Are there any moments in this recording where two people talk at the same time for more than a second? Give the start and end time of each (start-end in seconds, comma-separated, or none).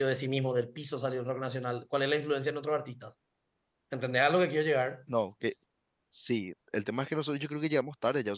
none